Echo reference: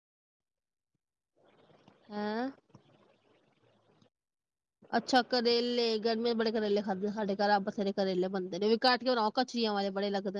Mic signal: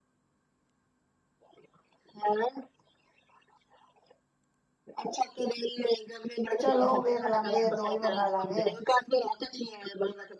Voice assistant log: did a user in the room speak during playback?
Yes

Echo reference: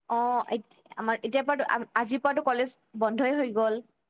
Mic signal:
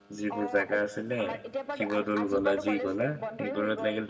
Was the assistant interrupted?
Yes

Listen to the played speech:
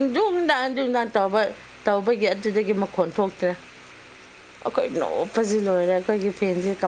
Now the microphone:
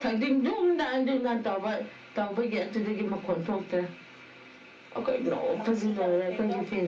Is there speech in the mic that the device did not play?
Yes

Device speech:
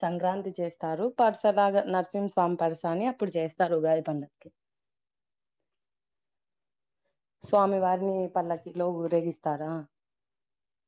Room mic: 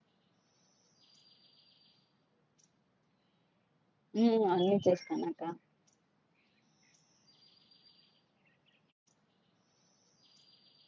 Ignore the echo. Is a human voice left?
Yes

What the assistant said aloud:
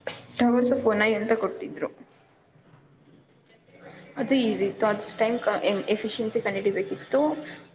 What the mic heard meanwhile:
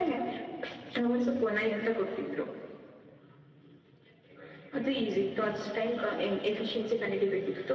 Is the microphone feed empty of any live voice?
Yes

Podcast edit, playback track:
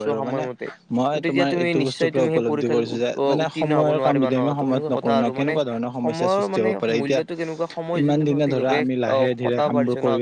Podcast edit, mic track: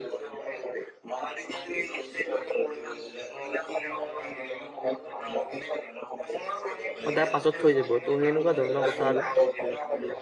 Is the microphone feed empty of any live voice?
No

